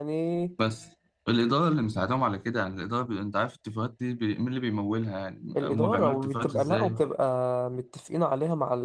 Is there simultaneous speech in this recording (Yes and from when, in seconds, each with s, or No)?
Yes, from 5.5 s